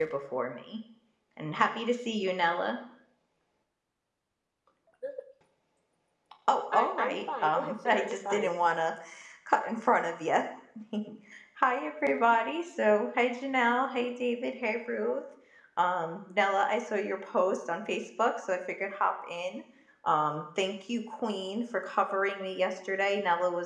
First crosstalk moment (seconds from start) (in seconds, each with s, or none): 6.7 s